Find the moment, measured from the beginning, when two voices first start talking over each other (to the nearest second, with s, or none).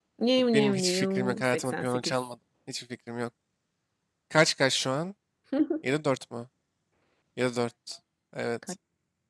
1 s